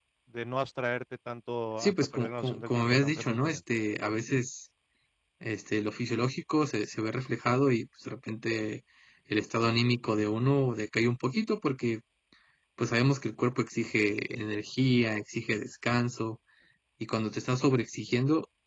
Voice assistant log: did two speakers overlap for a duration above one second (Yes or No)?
Yes